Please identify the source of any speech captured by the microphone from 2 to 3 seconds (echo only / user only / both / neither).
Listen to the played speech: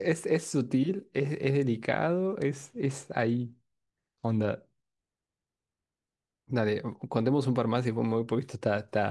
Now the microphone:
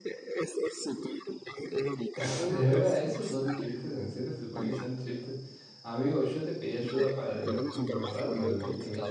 both